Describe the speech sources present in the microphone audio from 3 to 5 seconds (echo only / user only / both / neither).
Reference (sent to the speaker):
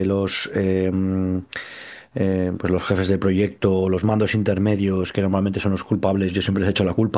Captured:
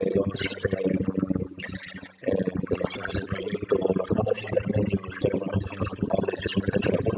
echo only